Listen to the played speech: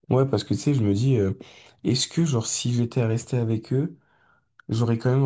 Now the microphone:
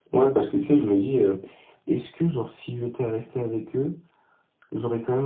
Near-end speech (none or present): none